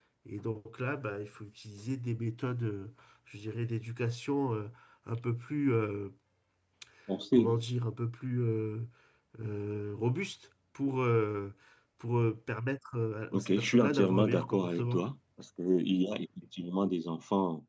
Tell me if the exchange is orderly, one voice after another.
No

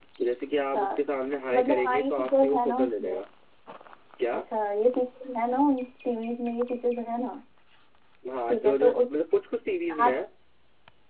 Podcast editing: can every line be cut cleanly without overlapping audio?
No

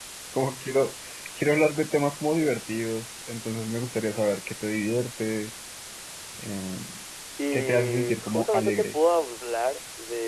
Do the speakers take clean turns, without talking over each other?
No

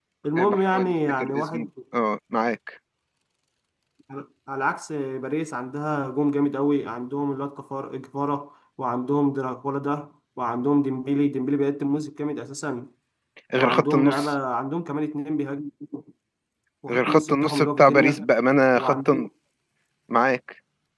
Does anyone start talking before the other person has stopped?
Yes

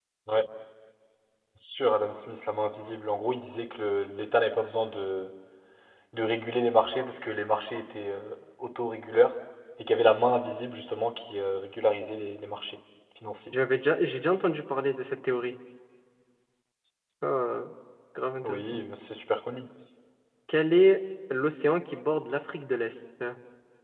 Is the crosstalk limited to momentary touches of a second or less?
Yes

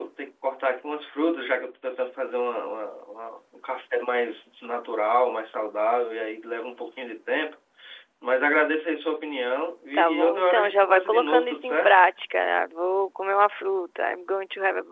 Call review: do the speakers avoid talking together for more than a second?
No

